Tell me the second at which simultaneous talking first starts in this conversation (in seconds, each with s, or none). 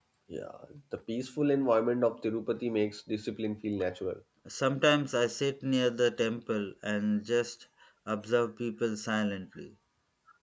none